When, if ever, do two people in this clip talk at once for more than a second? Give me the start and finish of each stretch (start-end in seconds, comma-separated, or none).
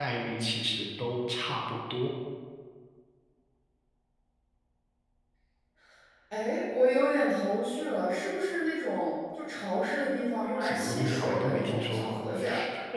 10.6-12.2